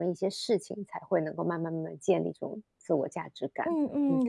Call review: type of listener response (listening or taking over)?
taking over